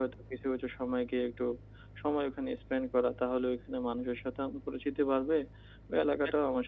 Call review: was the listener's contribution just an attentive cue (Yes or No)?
Yes